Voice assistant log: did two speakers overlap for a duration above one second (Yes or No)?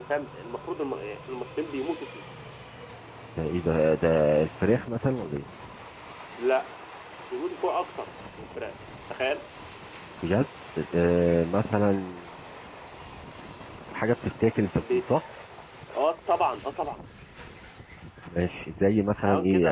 No